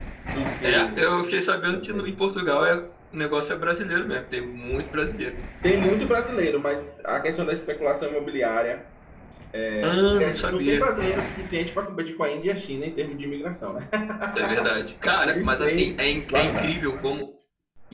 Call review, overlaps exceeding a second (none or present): present